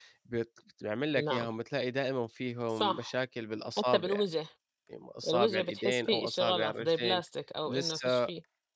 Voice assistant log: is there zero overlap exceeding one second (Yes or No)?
No